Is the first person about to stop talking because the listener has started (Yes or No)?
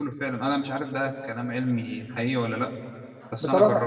Yes